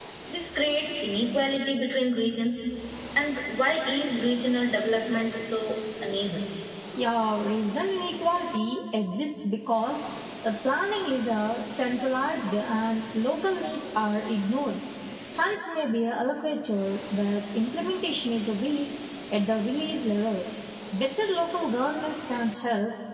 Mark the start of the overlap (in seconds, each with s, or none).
none